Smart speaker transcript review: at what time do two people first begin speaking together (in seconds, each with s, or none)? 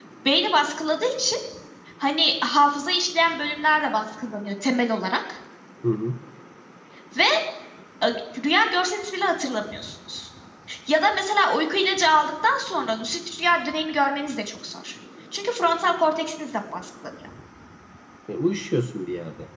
none